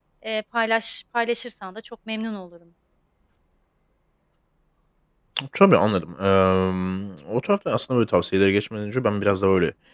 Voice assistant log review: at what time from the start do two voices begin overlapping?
none

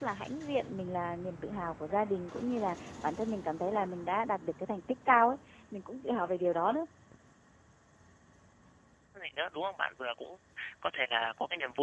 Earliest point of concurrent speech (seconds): none

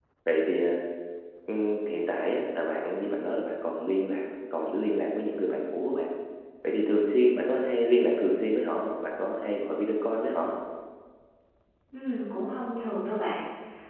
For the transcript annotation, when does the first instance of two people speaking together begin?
none

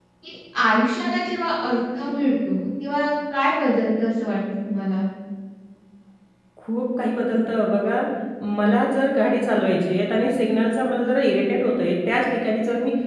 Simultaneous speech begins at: none

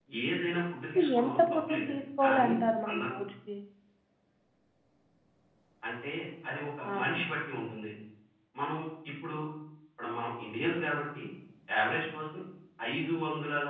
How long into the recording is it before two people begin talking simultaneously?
1.0 s

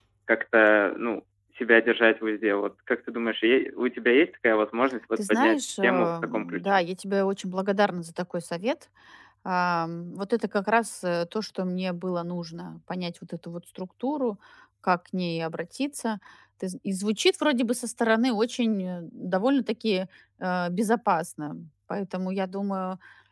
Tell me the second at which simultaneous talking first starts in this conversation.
5.2 s

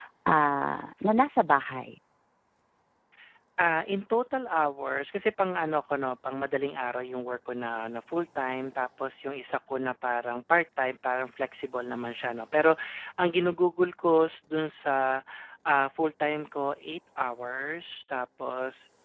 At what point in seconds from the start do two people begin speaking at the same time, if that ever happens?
none

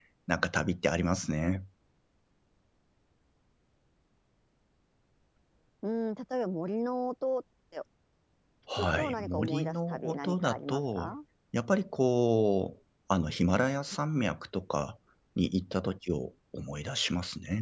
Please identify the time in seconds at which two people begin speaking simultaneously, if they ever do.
8.8 s

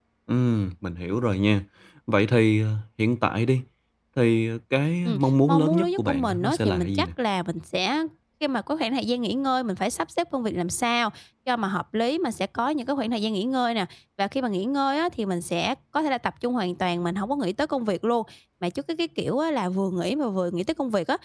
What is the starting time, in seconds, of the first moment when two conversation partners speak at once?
5.0 s

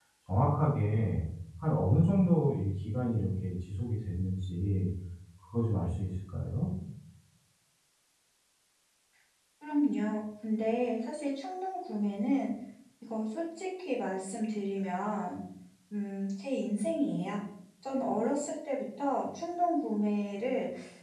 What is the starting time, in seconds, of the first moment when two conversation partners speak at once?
none

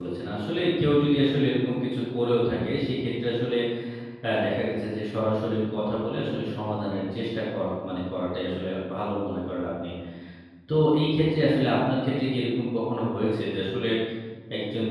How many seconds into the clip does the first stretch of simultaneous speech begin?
none

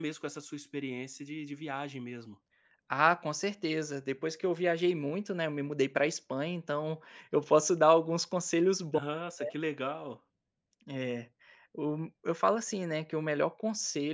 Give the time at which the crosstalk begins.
none

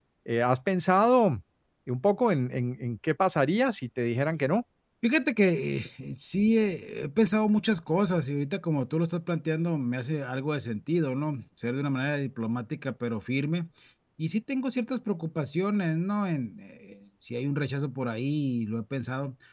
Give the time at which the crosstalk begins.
none

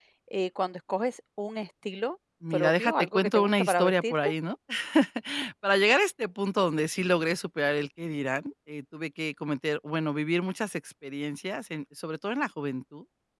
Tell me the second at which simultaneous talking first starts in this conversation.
2.4 s

